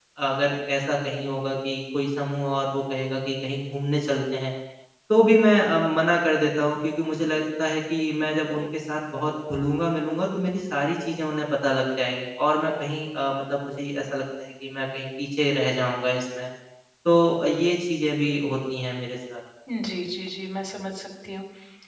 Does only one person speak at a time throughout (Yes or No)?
Yes